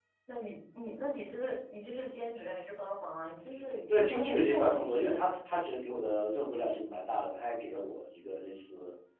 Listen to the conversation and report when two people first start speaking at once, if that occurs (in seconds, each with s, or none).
3.9 s